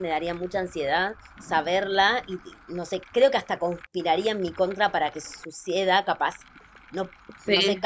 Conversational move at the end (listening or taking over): listening